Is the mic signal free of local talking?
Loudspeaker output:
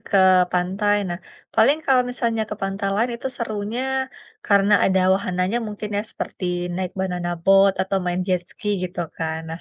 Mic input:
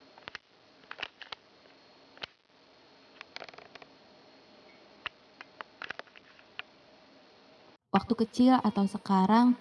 No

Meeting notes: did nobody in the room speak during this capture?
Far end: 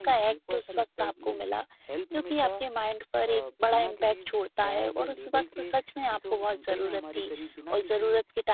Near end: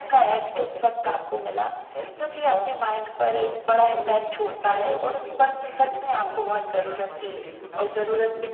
No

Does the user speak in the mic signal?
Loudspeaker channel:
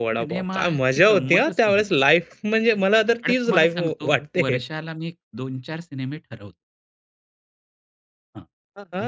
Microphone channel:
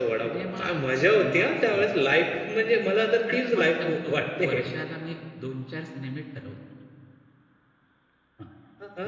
No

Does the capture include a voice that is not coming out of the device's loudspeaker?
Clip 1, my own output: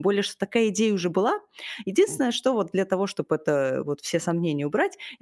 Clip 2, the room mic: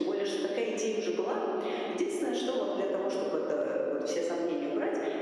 No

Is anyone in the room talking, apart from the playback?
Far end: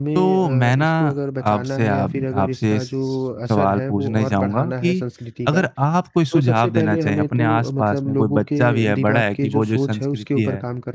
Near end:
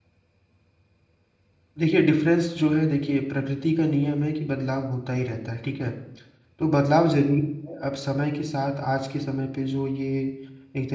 Yes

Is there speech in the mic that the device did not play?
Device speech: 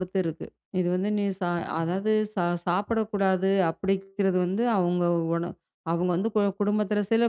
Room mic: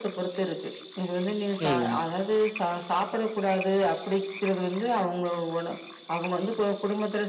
Yes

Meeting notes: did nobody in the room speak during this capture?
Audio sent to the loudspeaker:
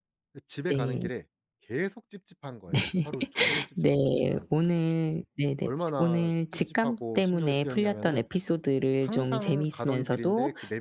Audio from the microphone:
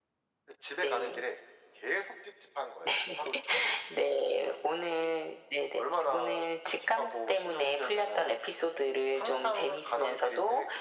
Yes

